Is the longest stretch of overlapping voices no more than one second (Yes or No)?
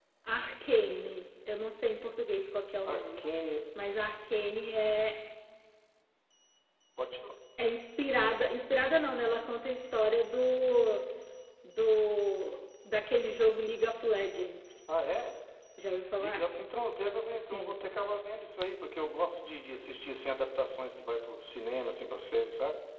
Yes